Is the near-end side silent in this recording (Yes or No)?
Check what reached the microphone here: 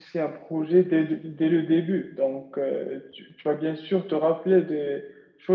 No